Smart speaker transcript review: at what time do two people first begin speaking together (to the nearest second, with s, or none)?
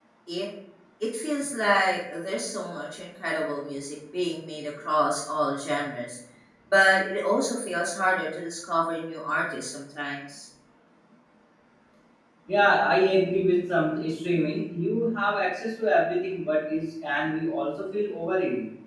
none